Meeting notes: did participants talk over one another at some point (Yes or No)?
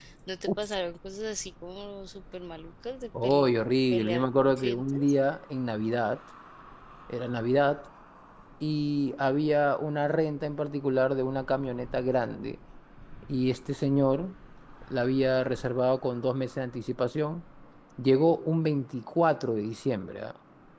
Yes